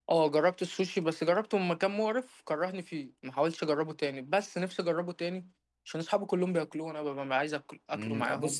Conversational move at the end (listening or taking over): taking over